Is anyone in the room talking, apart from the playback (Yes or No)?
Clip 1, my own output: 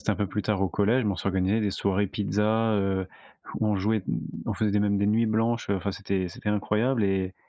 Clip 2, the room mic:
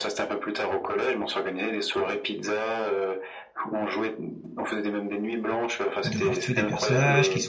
Yes